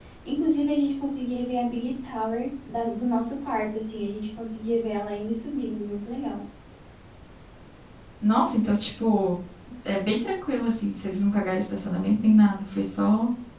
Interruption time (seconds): none

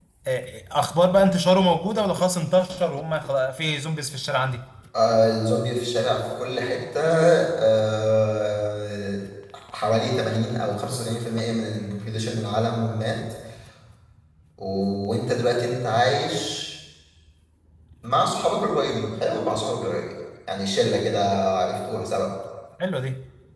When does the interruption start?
none

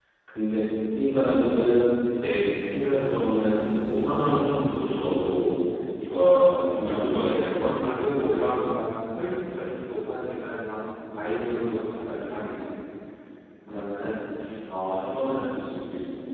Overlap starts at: 6.2 s

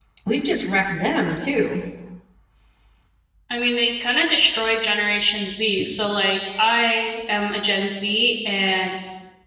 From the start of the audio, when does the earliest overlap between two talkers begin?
none

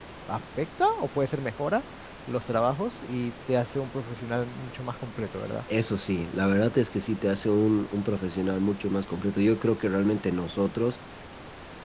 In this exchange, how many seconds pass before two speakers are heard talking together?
none

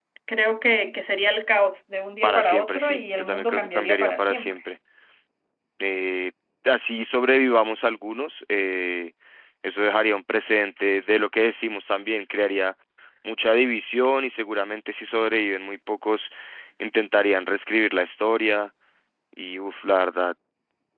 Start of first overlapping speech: 2.2 s

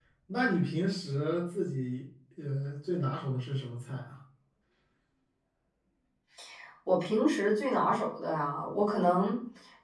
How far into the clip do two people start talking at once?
none

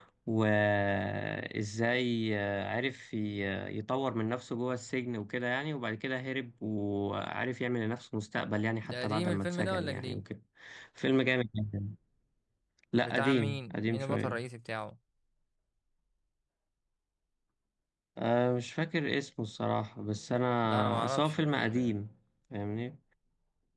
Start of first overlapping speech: 8.8 s

